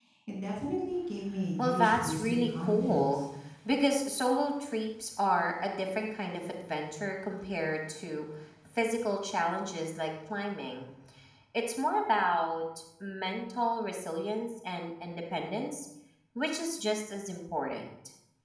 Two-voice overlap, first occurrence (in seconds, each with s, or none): 1.6 s